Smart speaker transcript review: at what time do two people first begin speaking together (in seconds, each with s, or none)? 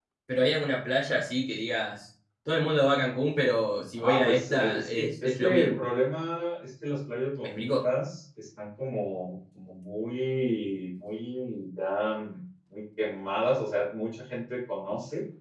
4.0 s